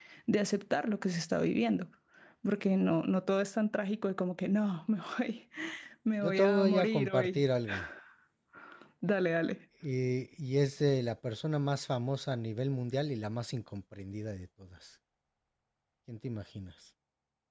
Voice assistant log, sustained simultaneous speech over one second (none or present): present